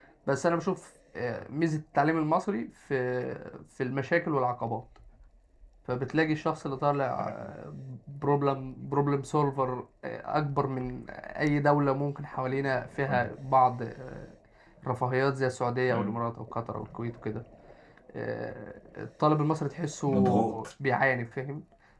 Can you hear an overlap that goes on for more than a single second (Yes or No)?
No